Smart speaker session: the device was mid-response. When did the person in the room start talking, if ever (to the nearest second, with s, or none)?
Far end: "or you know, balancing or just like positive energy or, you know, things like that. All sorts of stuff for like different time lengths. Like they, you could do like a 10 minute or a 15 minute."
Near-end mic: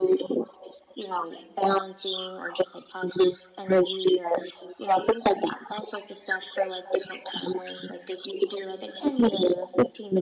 none